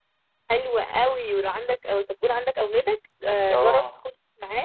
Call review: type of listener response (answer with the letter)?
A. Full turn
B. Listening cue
B